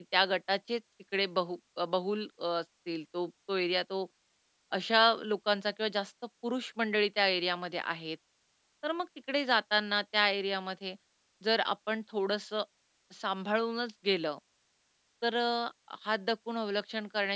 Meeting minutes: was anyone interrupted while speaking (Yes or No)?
No